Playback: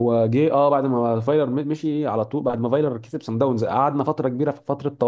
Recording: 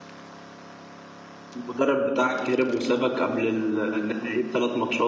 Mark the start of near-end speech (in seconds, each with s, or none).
1.6 s